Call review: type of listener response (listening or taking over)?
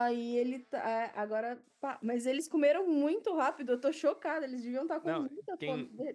taking over